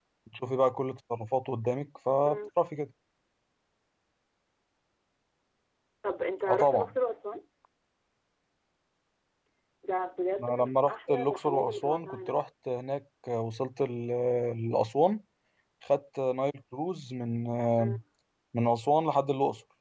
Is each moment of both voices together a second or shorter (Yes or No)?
No